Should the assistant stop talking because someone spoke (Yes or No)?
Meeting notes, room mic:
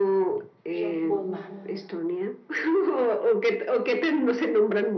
Yes